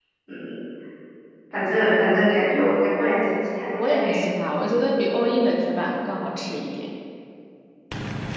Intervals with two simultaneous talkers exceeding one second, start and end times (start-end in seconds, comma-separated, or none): none